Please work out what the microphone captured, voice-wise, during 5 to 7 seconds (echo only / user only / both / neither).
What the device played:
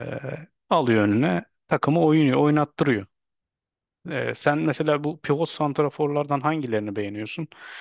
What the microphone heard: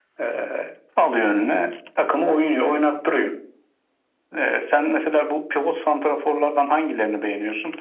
echo only